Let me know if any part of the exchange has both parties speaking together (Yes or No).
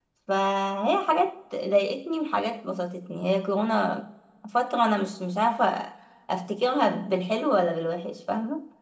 No